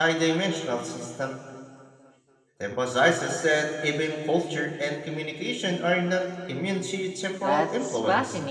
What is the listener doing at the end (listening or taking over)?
taking over